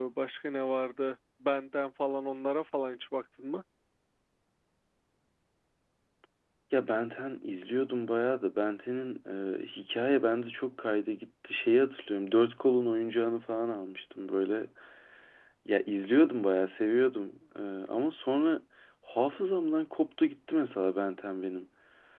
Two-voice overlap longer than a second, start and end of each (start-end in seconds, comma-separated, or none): none